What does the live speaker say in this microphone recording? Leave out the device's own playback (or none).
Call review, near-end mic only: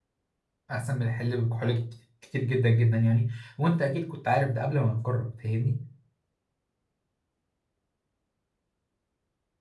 أحسن من الحل بكحول كت- كتير جدا جدا يعني وأنت أكيد كنت عارف ده قبل ما نجرب فاهمني؟